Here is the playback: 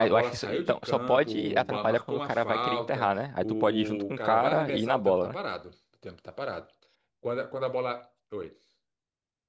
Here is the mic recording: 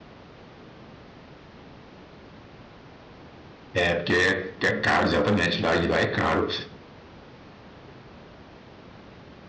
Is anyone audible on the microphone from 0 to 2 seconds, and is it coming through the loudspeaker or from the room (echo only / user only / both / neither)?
neither